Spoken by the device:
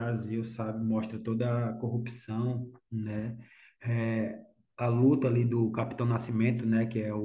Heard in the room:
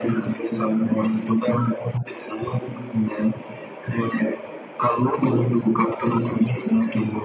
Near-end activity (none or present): none